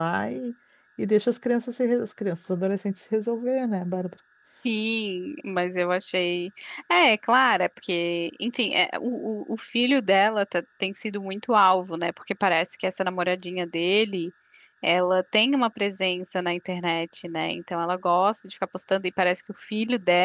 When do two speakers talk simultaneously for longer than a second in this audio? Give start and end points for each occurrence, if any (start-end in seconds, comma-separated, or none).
none